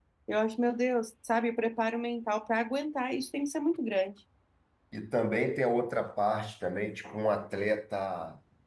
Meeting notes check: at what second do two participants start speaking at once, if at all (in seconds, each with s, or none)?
none